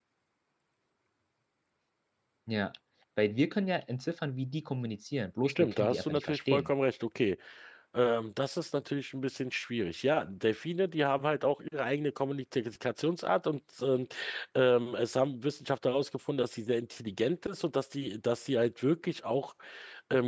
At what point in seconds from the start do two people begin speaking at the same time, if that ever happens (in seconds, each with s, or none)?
5.5 s